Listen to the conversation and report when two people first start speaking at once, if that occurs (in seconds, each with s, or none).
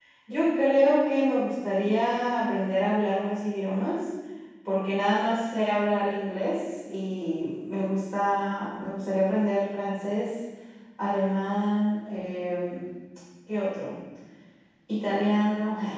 none